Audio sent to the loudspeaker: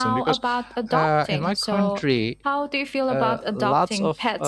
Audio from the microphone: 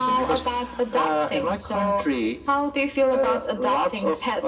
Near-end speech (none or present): none